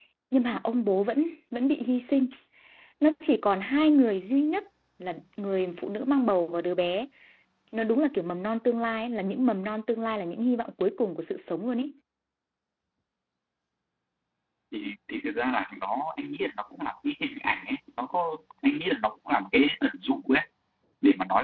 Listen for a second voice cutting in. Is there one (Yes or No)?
No